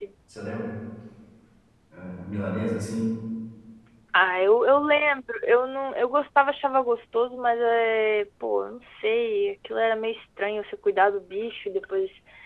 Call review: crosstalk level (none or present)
none